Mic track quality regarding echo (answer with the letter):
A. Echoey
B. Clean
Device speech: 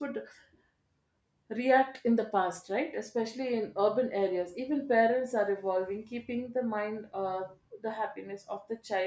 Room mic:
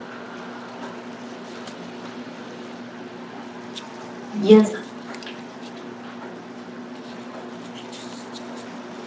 B